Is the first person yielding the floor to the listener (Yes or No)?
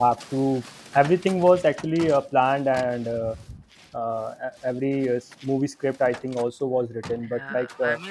Yes